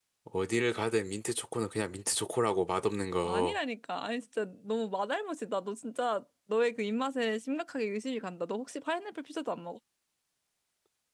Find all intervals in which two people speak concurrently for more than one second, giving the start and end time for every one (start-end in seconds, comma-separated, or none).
none